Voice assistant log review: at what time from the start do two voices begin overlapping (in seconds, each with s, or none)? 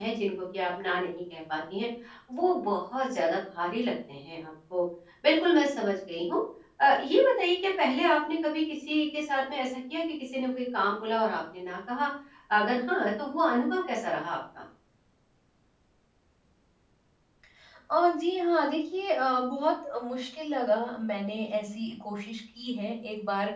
none